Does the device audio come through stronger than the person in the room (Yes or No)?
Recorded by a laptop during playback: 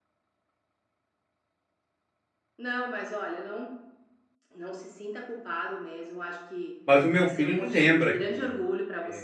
No